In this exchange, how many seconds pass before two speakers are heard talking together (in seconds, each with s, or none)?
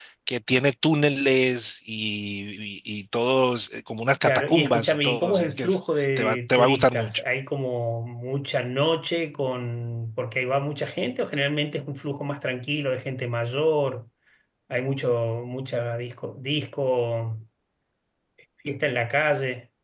4.2 s